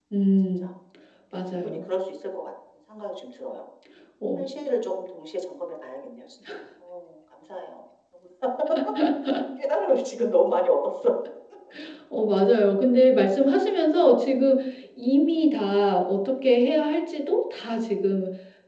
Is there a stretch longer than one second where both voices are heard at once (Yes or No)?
No